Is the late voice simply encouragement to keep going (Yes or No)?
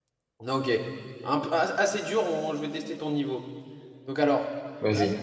Yes